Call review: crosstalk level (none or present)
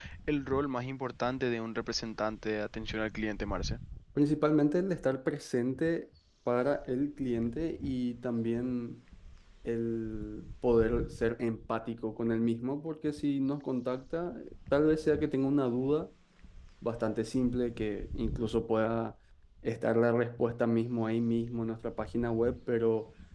none